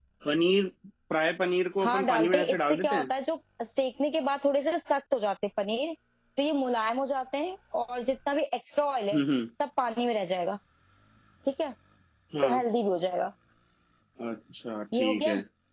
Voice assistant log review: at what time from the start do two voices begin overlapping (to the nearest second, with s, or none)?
2 s